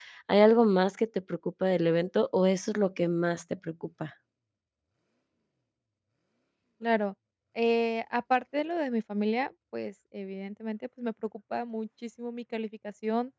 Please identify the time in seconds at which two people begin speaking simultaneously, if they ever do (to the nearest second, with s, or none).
none